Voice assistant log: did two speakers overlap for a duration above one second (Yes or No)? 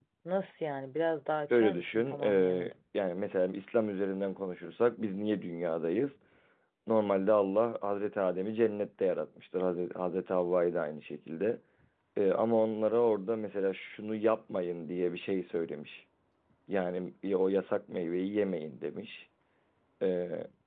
Yes